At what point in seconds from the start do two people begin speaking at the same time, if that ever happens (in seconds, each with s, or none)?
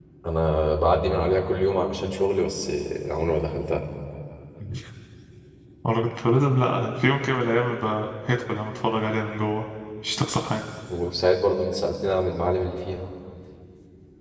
none